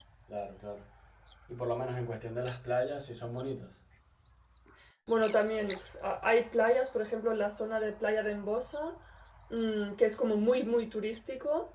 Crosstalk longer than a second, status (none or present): none